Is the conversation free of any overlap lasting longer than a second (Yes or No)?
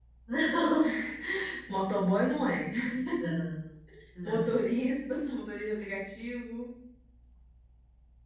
Yes